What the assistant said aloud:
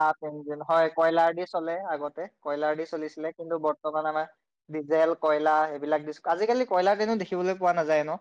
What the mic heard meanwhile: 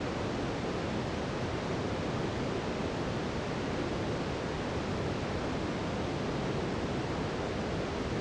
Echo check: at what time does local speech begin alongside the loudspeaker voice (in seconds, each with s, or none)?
none